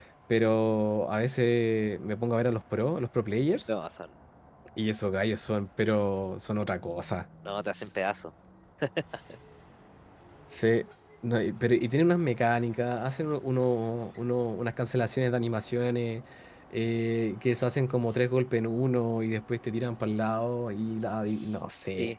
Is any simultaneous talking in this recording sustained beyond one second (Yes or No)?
No